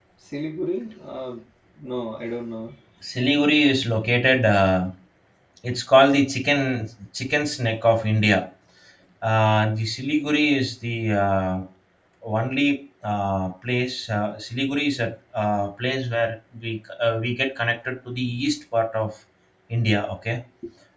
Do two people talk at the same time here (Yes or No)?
No